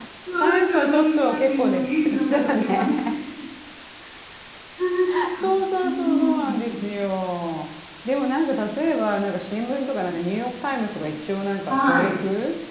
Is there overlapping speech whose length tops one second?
Yes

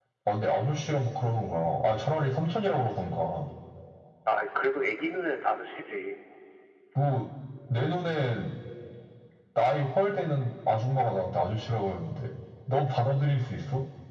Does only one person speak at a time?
Yes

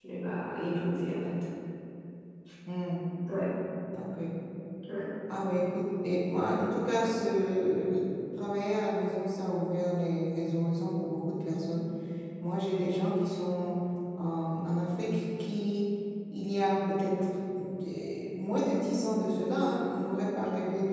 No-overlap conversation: Yes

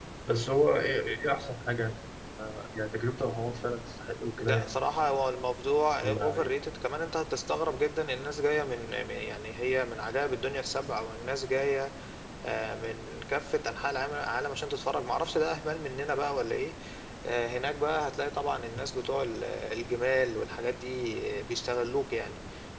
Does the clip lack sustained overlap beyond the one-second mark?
Yes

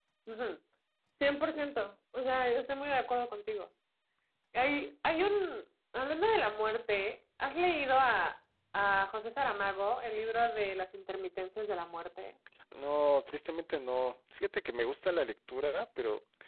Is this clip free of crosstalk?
Yes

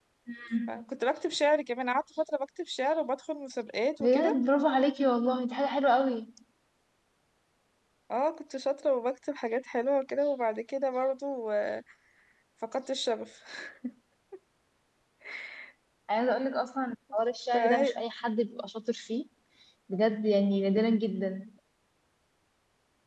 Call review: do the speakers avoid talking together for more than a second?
Yes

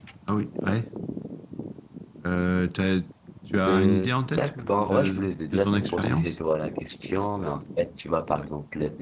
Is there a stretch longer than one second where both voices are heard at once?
Yes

